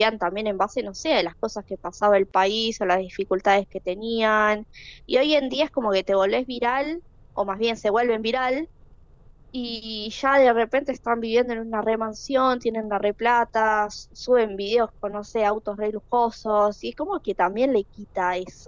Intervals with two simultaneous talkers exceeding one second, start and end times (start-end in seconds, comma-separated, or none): none